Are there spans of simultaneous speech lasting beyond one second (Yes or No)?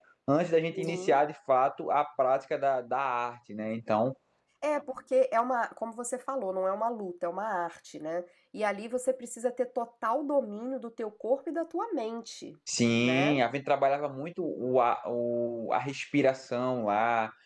No